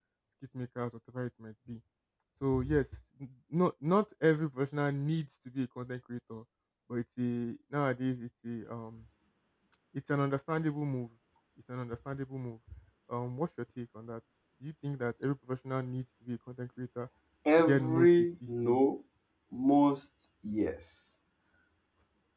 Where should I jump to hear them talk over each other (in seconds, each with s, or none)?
17.6 s